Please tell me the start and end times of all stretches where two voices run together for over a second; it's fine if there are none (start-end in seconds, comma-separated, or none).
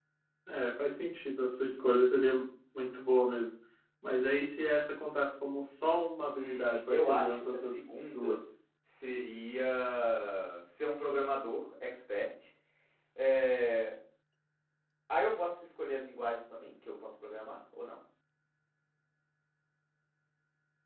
6.3-8.4